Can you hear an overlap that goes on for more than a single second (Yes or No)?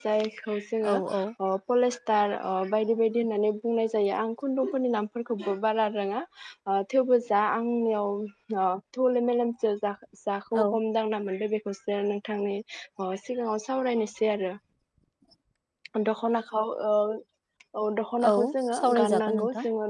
Yes